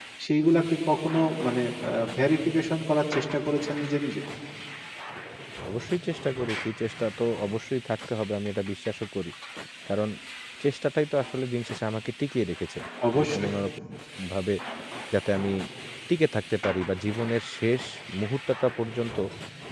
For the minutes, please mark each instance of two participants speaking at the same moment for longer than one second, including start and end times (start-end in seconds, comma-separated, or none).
none